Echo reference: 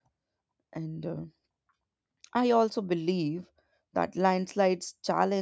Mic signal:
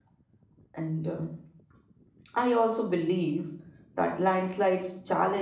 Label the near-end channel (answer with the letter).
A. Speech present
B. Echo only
B